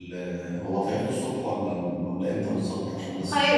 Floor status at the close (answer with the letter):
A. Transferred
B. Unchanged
A